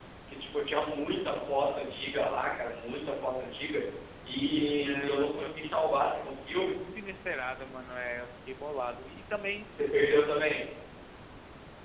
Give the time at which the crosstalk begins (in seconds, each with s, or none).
4.6 s